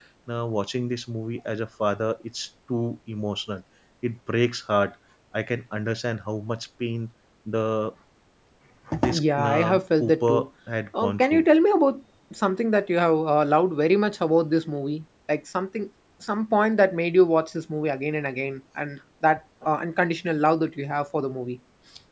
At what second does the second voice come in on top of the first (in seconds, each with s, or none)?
9.2 s